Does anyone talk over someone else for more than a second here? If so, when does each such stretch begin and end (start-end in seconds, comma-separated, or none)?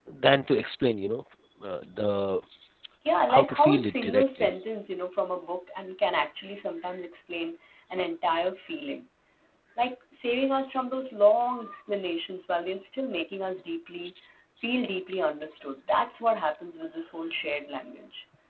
3.3-4.5